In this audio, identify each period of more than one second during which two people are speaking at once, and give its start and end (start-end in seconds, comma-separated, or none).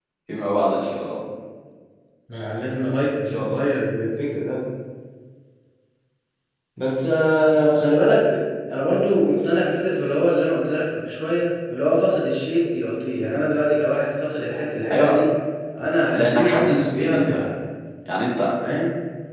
16.1-17.4